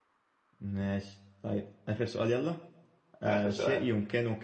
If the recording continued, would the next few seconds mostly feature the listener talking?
No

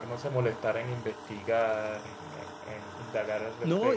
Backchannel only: No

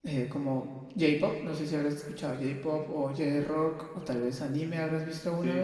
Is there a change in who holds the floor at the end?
Yes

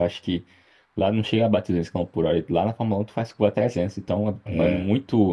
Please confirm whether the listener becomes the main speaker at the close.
No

